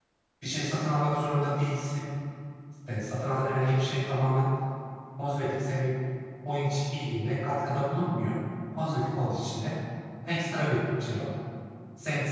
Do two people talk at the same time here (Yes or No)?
No